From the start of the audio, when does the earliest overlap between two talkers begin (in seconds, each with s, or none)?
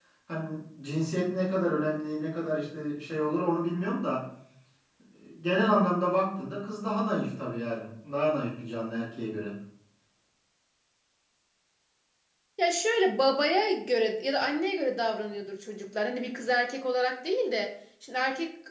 none